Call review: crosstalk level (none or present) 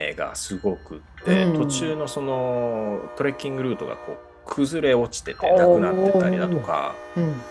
present